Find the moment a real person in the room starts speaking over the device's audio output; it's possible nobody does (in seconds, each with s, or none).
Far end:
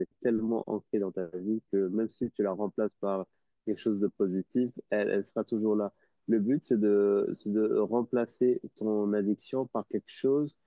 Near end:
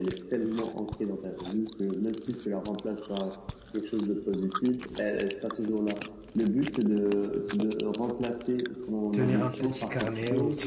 9.1 s